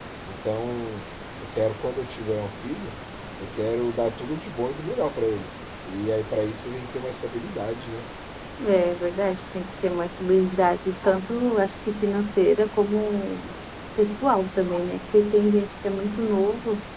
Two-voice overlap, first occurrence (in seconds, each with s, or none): none